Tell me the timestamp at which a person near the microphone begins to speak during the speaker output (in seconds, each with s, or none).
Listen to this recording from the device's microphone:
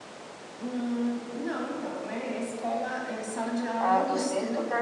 3.8 s